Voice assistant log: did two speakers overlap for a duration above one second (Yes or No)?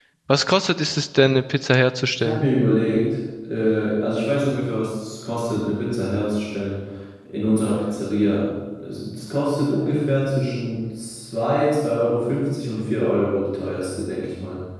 No